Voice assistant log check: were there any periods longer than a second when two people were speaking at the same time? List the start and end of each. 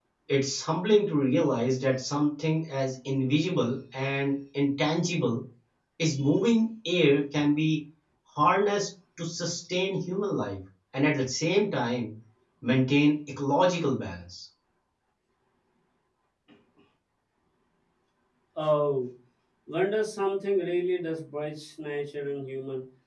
none

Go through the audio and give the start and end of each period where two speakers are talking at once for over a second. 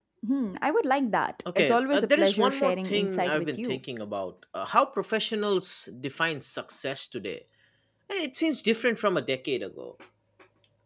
1.6-3.8

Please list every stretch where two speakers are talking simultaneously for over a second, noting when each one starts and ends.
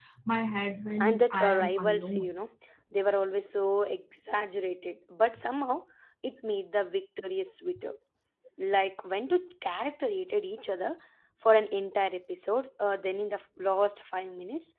1.0-2.3

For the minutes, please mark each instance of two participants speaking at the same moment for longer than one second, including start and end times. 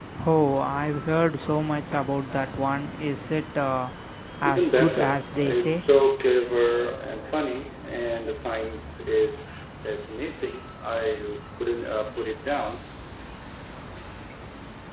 4.4-5.8

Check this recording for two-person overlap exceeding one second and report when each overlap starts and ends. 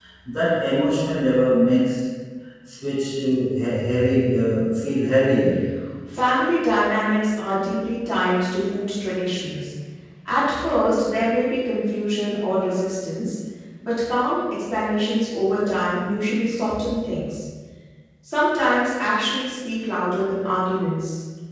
none

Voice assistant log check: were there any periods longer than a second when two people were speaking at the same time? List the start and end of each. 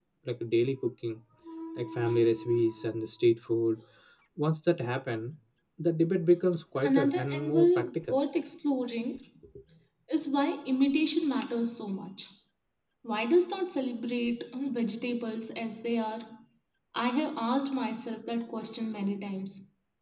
6.8-8.2

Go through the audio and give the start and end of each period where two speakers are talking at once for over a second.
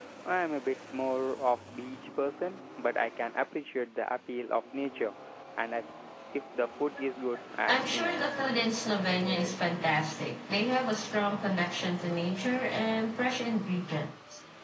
none

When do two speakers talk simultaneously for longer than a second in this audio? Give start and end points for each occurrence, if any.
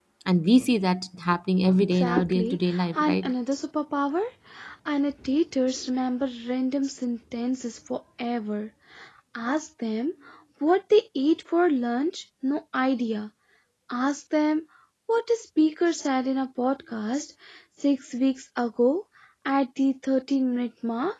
1.9-3.3

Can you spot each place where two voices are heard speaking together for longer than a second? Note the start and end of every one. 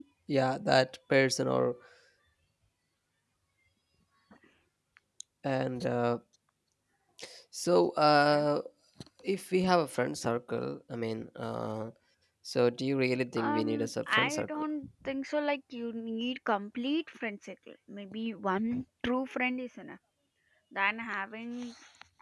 13.4-14.6

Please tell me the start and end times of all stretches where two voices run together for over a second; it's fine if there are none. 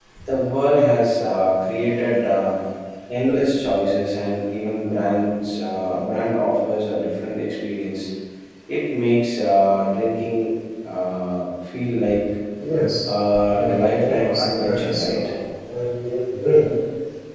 13.5-15.3

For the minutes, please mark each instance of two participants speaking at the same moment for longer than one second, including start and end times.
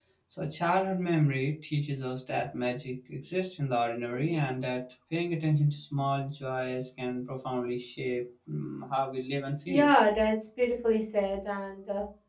none

